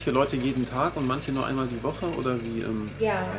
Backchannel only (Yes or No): No